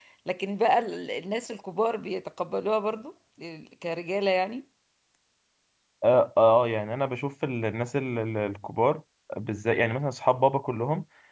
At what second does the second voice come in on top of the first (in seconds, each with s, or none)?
none